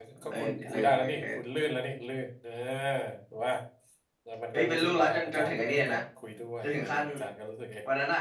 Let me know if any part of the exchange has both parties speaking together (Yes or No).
Yes